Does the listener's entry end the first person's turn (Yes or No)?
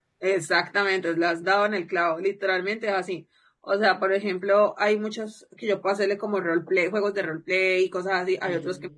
No